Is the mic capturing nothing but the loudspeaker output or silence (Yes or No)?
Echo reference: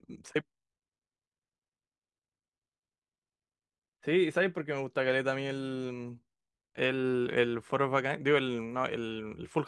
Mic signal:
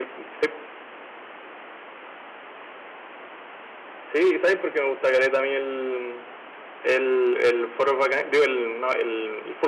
Yes